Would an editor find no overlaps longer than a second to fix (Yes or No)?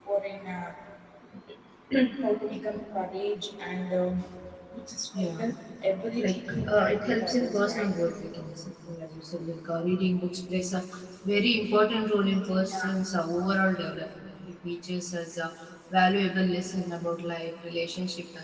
No